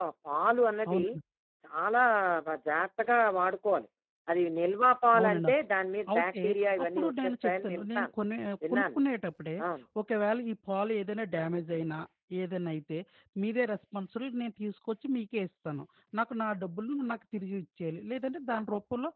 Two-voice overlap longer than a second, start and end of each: 6.8-8.1

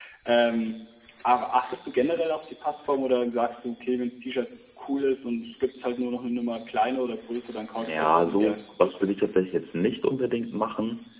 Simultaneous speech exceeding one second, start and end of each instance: 7.8-9.1

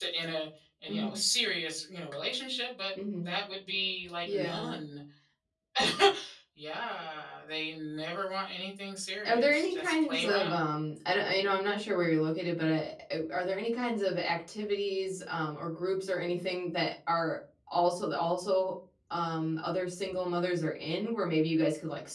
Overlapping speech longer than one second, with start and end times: 9.2-10.6

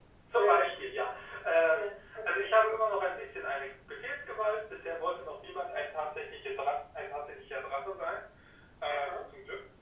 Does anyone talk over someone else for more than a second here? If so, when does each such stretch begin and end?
none

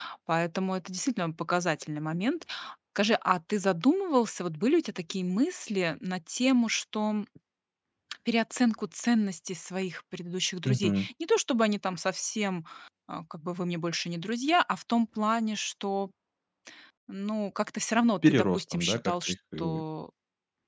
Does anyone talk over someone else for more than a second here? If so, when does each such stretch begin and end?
18.2-19.8

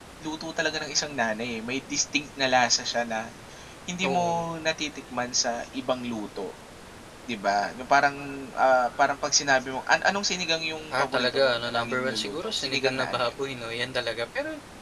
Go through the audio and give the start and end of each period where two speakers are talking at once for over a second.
10.9-13.3

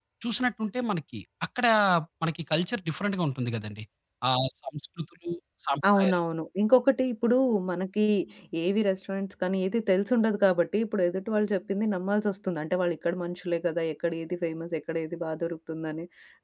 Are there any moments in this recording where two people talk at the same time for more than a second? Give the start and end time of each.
none

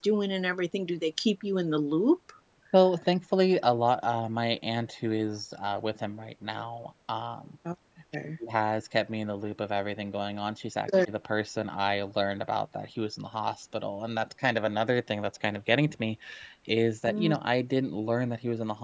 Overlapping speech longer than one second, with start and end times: none

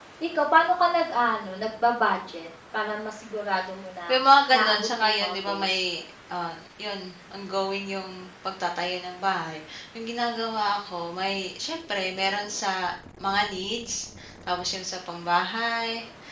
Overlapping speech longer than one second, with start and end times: 4.5-6.0

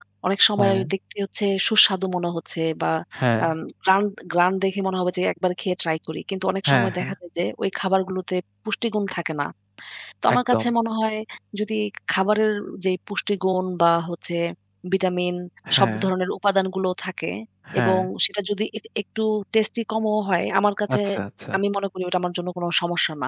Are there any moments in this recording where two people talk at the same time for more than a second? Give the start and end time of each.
none

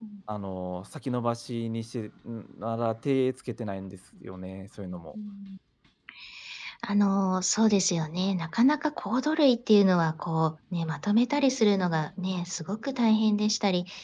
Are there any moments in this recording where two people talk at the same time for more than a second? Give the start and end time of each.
none

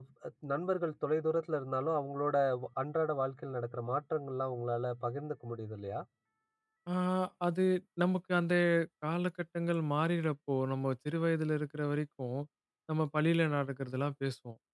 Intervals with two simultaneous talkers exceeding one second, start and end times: none

